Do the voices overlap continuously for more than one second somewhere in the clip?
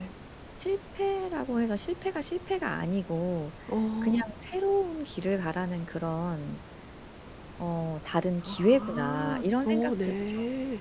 Yes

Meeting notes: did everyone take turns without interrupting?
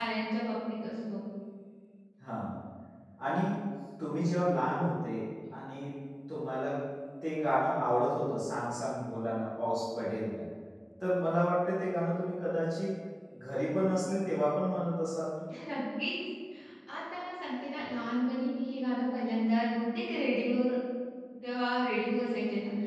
Yes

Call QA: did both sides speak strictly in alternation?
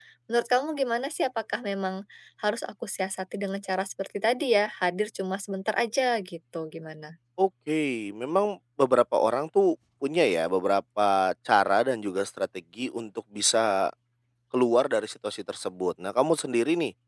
Yes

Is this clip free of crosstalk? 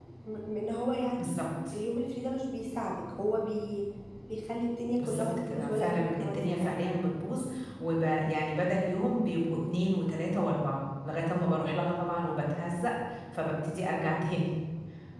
No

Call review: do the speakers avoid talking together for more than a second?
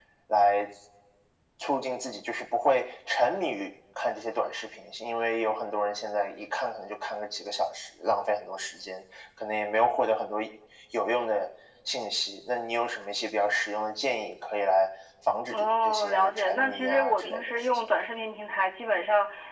No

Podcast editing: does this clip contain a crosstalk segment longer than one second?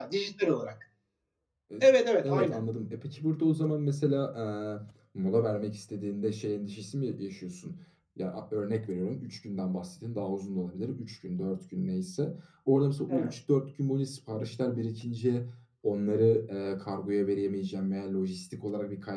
No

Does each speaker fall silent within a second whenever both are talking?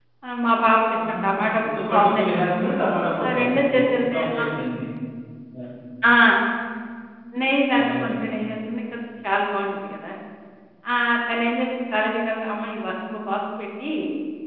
No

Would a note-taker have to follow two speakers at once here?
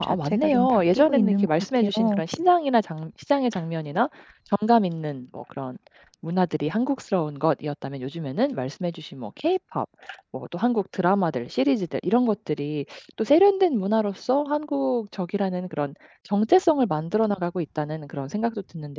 Yes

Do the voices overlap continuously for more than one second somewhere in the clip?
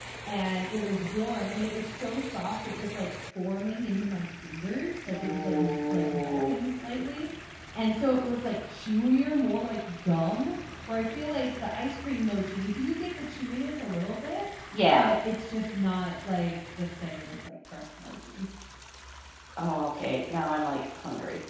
Yes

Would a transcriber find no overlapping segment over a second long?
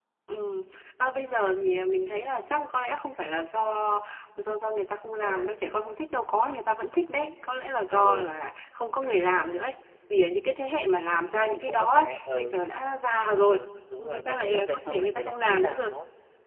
No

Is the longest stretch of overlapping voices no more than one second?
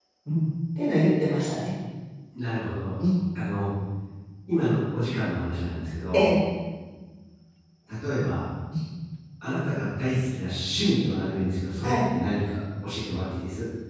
Yes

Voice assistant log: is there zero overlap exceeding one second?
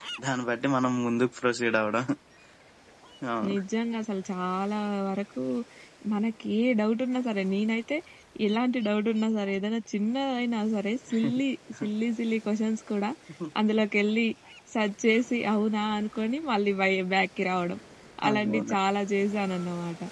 Yes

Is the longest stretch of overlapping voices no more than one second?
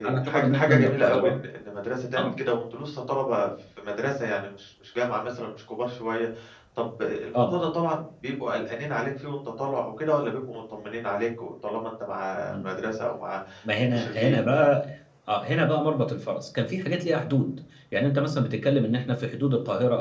No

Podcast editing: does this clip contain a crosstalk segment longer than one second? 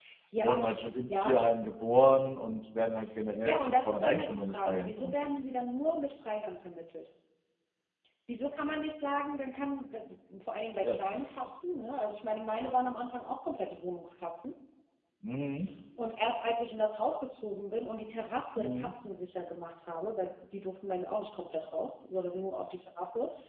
Yes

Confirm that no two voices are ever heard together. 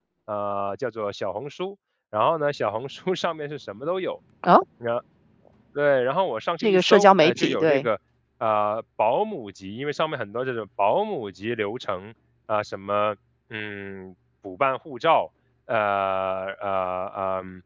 No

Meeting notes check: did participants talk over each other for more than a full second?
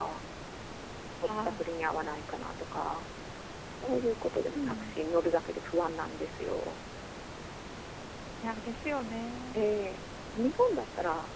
No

